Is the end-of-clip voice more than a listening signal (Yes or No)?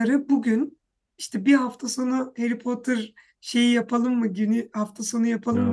No